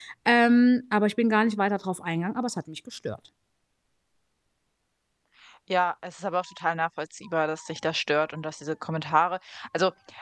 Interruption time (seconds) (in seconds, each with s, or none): none